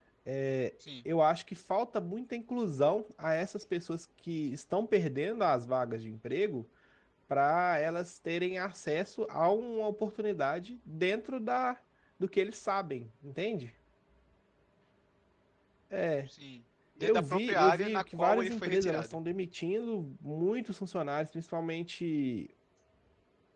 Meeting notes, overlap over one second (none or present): present